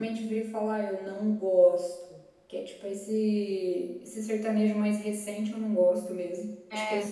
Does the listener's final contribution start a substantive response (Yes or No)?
No